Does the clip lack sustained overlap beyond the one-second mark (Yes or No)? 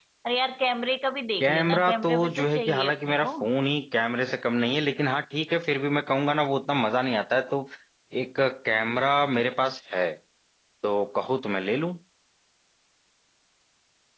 No